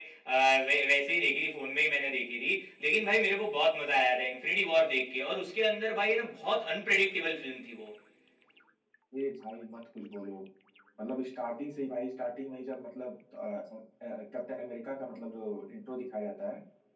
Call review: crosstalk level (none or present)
none